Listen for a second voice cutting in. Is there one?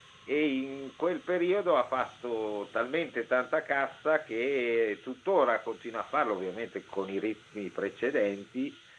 No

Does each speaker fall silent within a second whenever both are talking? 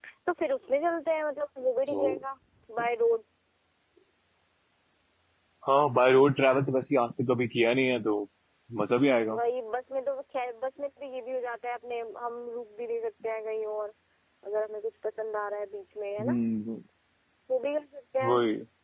Yes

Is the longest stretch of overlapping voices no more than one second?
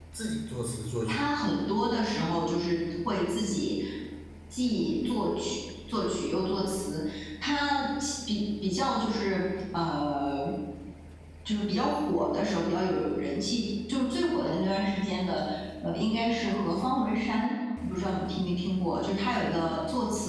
Yes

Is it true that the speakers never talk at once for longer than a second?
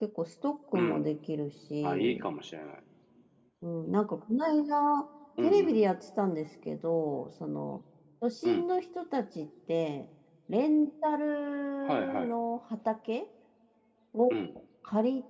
Yes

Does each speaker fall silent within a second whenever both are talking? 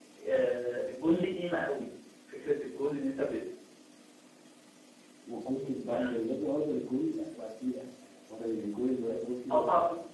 Yes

